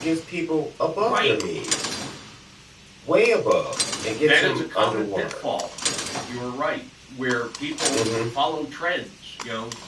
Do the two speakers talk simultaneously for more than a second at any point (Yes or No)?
Yes